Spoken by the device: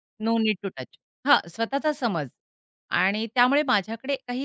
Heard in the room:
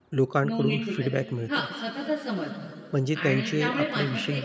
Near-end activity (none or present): present